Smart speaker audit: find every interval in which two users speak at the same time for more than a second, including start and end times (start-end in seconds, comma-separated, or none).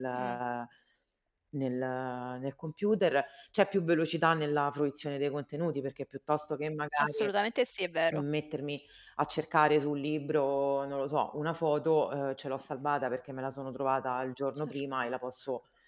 none